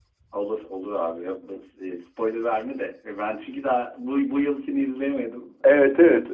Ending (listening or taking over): taking over